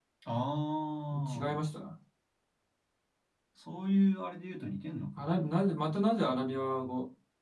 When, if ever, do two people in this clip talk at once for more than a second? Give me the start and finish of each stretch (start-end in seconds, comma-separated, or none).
none